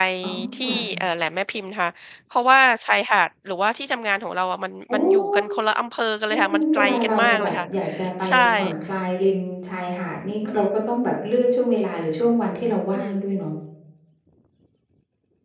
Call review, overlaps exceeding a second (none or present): present